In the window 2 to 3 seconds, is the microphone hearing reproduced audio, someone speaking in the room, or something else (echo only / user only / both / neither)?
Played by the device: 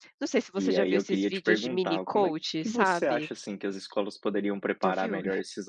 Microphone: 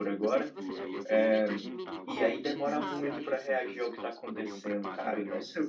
both